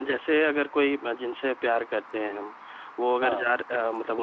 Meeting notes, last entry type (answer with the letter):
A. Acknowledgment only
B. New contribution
A